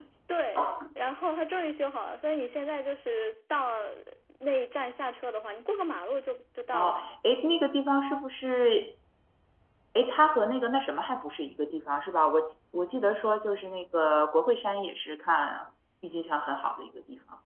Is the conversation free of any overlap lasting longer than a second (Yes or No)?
Yes